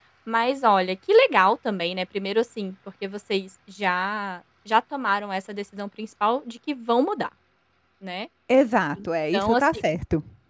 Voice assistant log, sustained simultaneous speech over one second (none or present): none